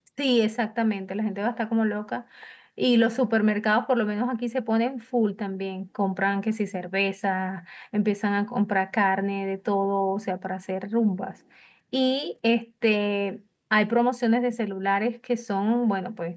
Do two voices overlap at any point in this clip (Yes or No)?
No